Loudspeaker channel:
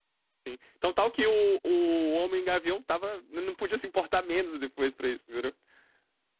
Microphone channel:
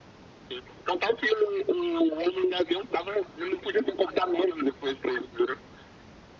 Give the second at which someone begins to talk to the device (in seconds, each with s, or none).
none